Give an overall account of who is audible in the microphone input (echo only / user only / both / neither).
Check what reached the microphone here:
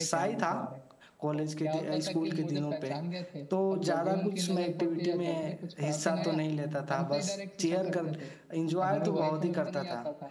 both